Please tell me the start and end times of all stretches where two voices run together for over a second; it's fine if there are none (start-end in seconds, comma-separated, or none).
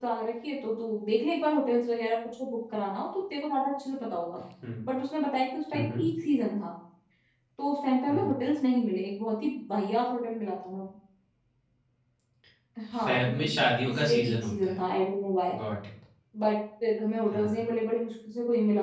12.9-14.8